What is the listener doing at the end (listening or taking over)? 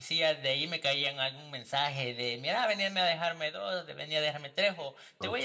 listening